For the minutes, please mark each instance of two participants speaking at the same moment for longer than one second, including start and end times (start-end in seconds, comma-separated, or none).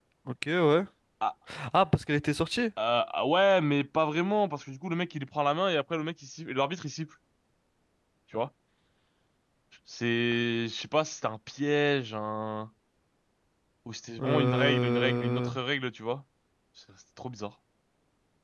14.2-15.5